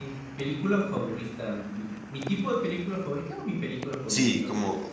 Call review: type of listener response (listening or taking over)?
taking over